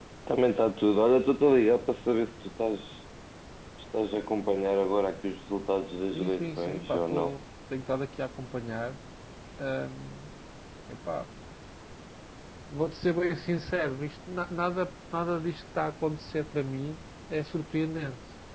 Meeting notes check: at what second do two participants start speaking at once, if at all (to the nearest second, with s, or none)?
6 s